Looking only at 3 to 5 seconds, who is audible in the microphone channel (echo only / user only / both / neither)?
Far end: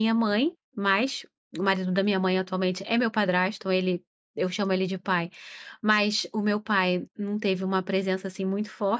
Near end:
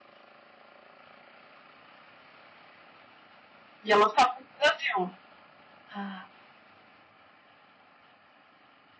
user only